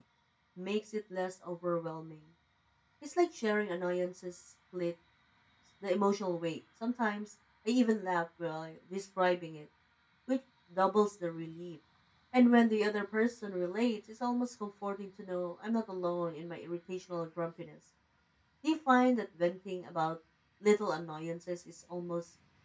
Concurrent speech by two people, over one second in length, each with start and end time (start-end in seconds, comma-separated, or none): none